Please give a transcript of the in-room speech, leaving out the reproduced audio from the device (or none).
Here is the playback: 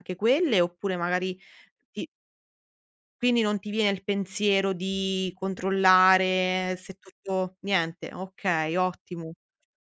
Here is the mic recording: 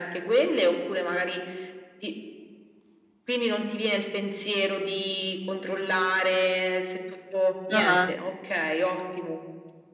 Ah-ah.